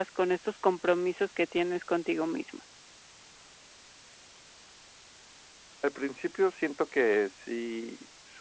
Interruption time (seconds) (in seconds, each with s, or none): none